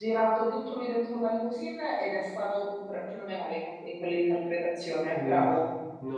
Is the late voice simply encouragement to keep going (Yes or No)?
No